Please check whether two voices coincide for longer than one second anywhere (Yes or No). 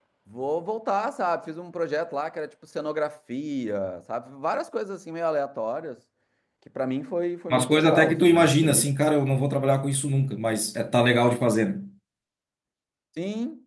Yes